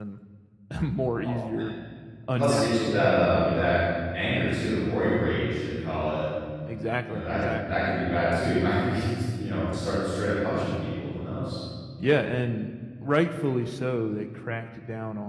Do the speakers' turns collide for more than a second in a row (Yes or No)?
Yes